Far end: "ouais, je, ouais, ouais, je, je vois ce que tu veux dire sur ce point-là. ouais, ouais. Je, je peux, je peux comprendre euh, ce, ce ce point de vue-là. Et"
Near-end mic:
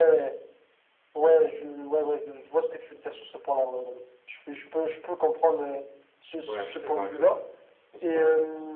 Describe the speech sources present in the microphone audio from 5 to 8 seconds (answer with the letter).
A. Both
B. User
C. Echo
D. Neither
A